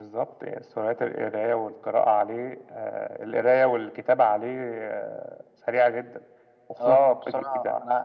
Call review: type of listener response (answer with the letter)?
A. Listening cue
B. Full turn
B